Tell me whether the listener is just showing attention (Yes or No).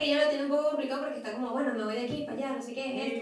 No